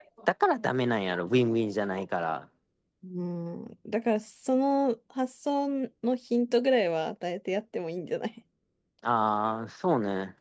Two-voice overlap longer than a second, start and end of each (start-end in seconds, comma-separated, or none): none